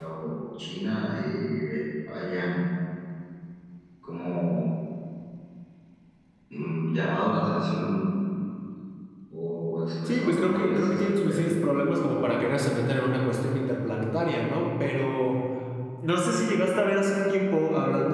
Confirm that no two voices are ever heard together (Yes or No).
No